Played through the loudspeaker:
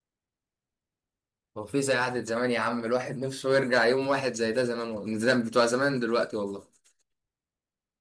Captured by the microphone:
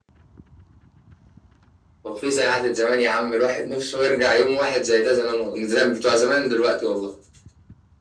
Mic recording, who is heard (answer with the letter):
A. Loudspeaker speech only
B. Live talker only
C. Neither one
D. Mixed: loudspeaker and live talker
A